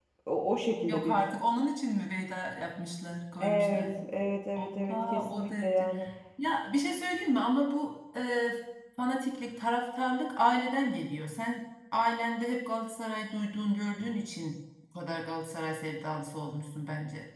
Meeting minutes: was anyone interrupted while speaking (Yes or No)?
Yes